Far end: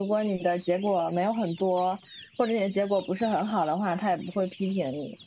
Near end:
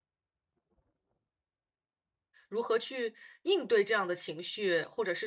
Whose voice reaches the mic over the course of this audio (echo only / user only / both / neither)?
user only